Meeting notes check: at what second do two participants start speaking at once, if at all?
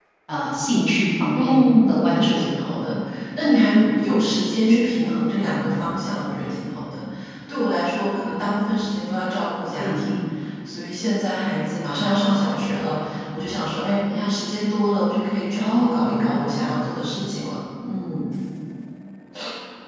1.3 s

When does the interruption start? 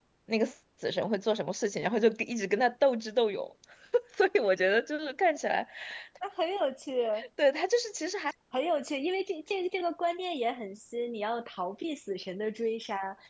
none

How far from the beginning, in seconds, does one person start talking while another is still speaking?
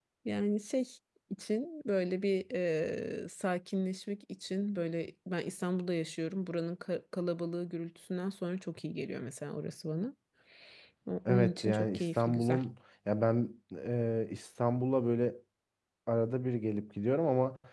11.2 s

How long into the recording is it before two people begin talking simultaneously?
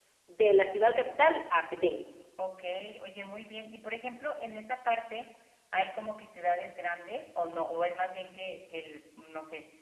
none

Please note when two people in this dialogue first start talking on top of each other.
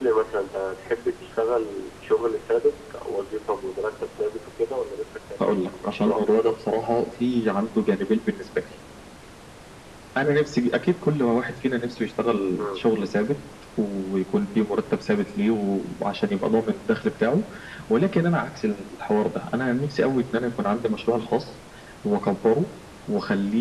5.4 s

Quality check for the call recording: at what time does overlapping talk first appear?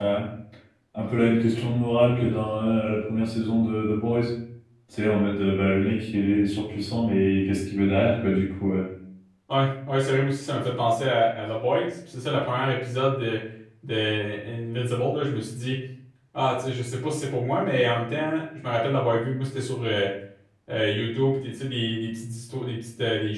none

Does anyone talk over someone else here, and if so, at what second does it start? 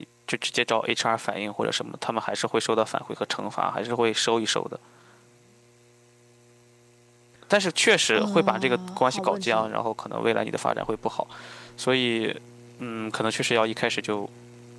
8.1 s

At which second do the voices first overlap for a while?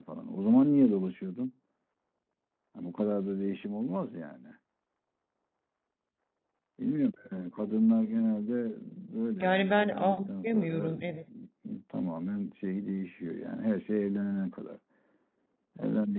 9.4 s

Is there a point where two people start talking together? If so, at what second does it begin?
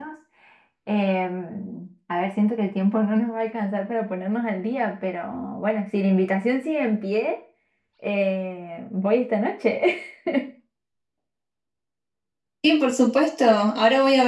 none

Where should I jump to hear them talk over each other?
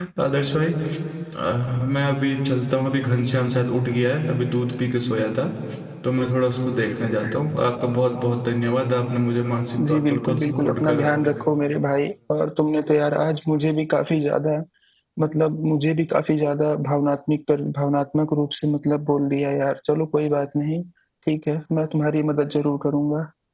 9.8 s

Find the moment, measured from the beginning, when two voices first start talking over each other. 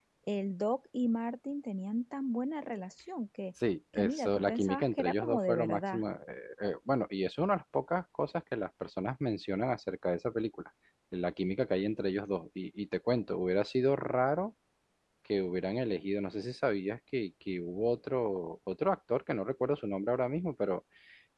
4.0 s

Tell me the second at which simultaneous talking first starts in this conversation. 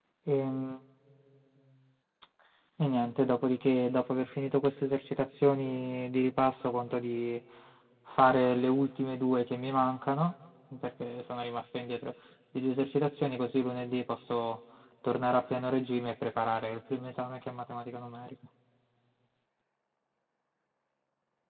none

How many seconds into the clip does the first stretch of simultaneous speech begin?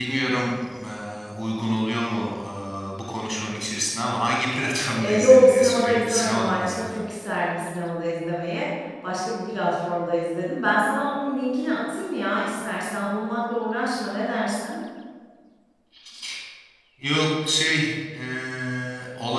5.0 s

